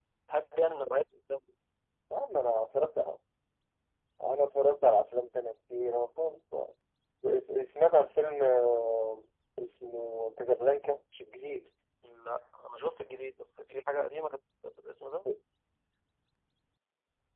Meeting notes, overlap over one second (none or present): none